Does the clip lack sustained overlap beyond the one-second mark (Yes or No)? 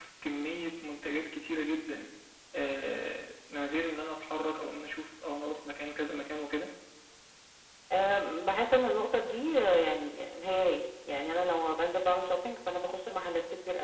Yes